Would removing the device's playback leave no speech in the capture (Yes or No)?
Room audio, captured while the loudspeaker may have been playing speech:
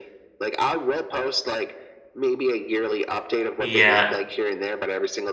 No